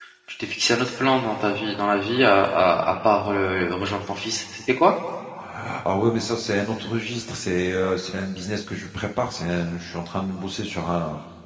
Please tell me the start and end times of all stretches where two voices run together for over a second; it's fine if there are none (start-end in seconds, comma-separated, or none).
none